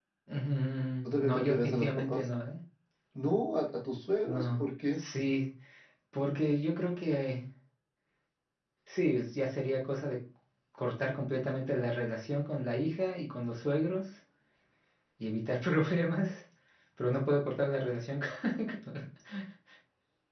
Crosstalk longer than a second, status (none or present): present